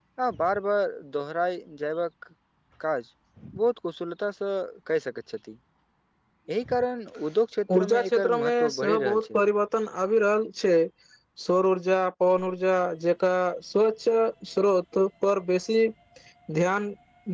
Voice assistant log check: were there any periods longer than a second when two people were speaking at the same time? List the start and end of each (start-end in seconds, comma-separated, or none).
7.7-9.4